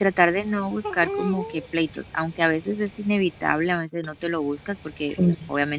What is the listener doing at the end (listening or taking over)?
listening